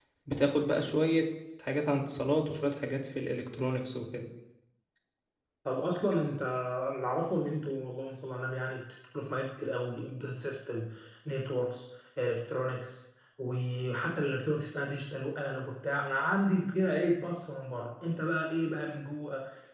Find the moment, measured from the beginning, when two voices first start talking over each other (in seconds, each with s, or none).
none